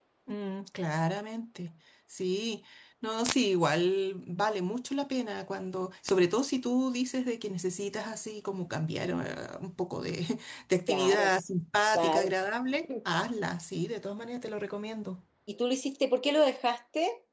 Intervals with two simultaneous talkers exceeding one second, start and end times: none

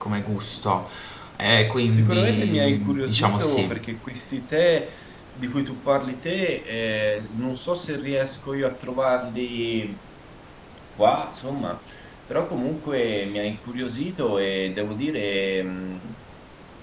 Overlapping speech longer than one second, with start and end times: 1.9-3.8

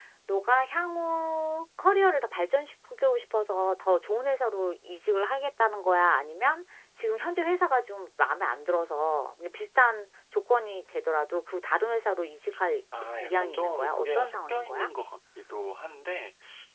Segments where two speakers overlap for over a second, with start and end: 13.2-14.9

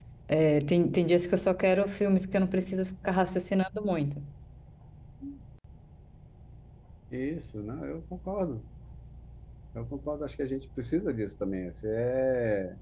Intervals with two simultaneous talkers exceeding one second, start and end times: none

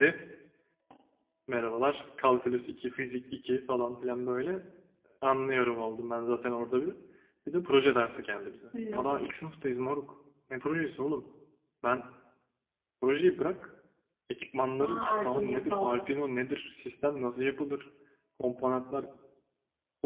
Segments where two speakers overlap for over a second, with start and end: 14.8-16.1

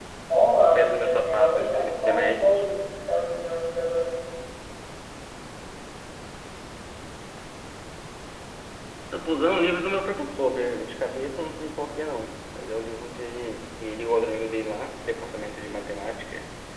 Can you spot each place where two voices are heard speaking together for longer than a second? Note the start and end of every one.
0.6-2.6

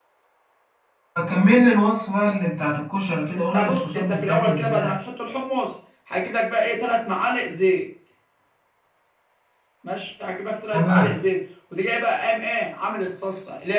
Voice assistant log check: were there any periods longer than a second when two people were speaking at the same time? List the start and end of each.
3.4-5.0

